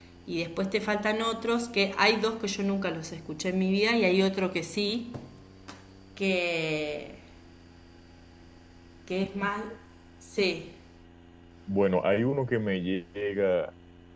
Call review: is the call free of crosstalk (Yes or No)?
Yes